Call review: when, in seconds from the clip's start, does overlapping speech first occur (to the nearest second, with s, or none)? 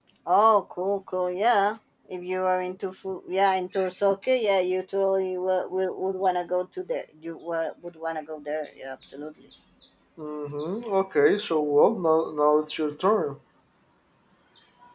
none